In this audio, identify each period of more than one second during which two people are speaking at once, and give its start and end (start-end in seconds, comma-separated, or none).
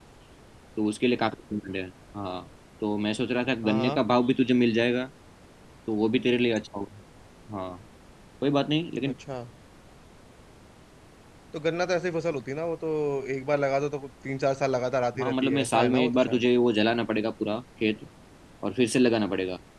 15.2-16.5